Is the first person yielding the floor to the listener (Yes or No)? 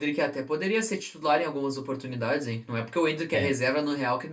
No